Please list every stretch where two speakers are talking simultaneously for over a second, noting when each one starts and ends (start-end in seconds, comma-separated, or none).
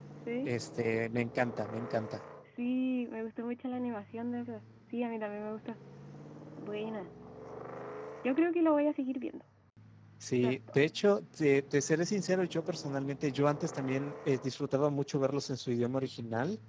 none